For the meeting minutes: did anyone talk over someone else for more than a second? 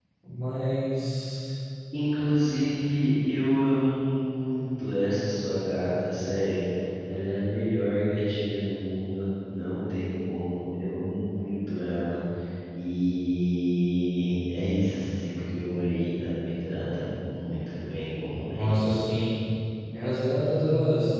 No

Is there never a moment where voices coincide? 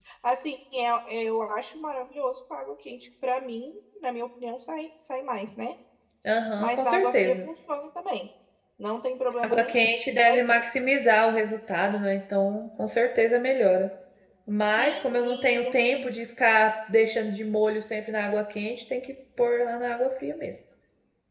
No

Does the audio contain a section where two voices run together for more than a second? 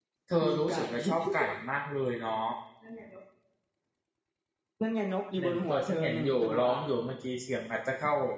Yes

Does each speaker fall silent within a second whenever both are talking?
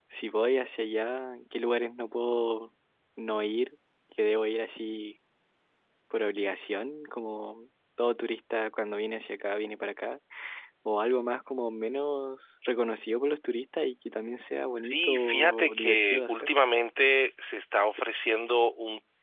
No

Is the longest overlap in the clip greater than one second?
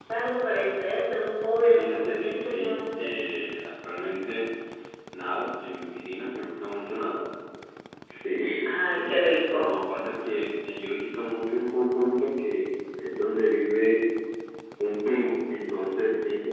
Yes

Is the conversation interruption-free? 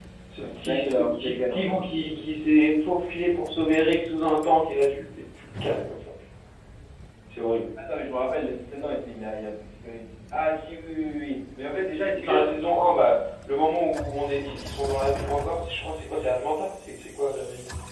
No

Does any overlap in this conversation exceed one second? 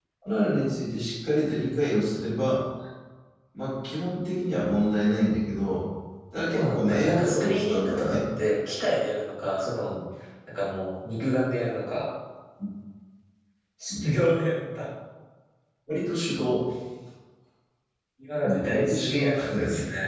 Yes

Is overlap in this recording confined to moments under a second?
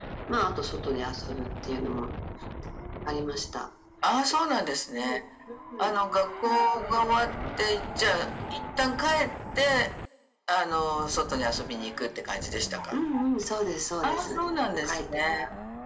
No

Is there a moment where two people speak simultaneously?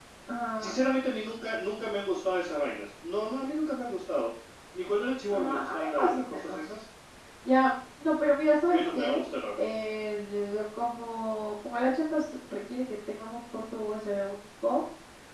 Yes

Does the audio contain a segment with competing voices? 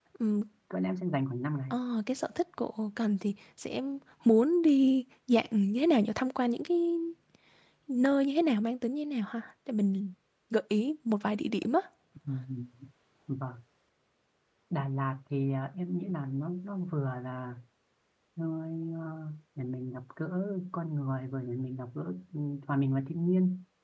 No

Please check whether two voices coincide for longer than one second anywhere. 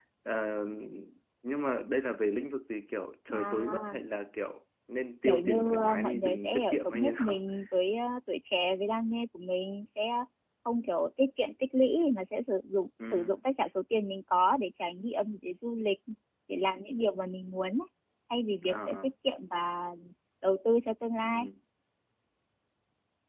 Yes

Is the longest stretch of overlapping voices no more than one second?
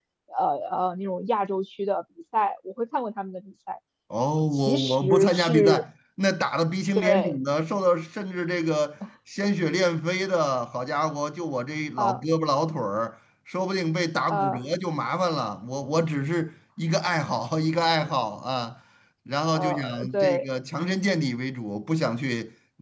No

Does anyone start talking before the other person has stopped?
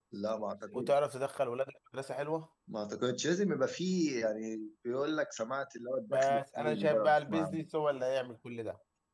Yes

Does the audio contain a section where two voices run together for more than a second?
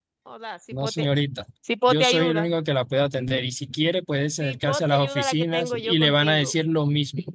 Yes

